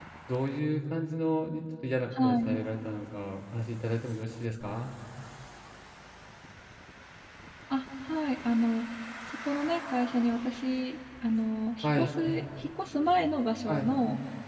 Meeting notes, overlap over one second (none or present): none